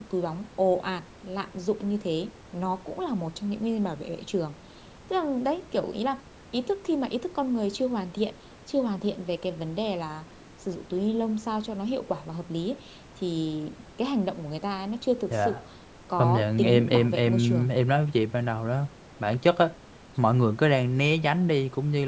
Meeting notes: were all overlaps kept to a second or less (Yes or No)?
No